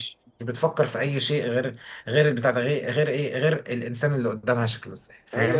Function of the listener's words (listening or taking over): taking over